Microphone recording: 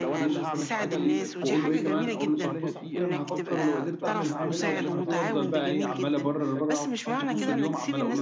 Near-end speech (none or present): present